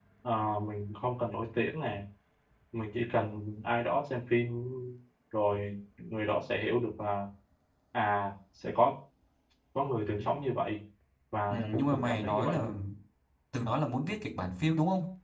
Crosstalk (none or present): present